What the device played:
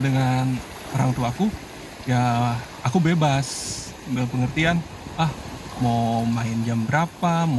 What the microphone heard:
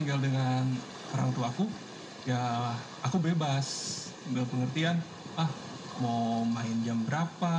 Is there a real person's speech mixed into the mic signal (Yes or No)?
No